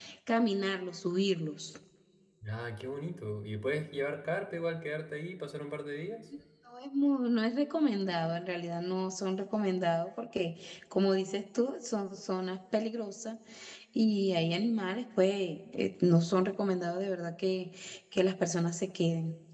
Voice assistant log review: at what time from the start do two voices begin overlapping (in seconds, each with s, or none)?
none